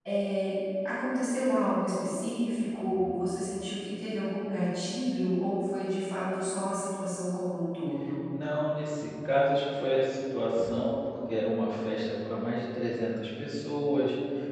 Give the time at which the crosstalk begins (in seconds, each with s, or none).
none